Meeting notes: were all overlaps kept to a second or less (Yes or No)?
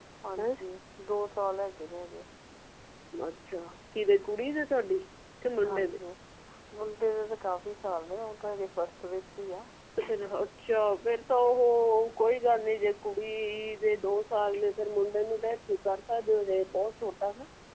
Yes